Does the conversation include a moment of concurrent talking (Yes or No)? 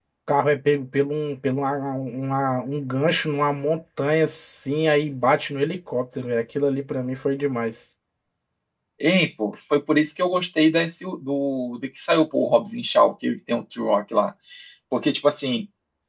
No